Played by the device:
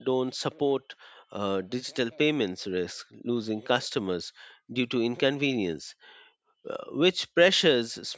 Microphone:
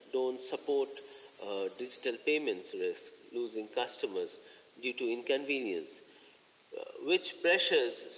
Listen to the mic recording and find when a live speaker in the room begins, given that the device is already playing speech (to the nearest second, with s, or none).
none